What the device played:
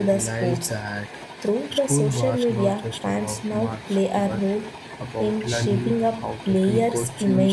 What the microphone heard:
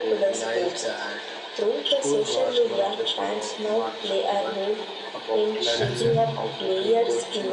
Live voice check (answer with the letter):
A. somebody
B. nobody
A